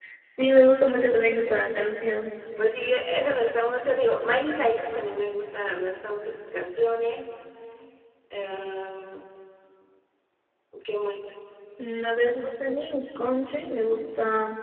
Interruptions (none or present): none